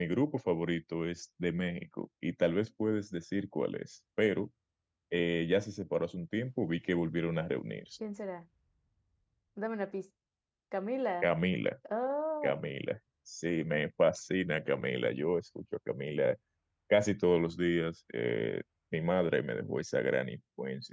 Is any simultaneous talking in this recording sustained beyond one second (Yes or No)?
No